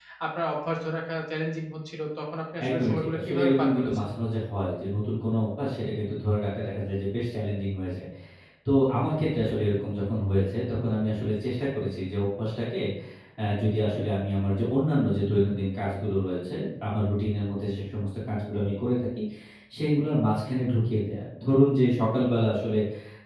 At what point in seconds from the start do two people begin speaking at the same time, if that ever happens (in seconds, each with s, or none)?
2.6 s